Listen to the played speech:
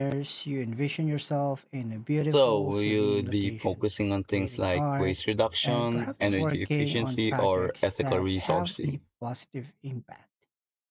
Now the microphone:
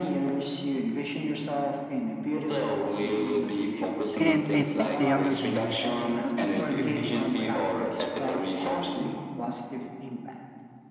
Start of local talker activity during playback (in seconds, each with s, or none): 4.2 s